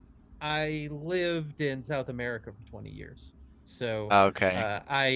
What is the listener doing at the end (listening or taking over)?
listening